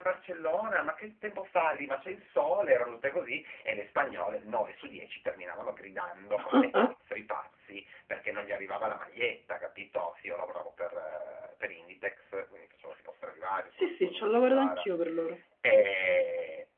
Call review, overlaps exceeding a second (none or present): present